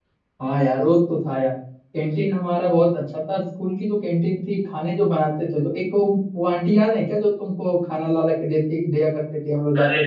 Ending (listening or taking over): taking over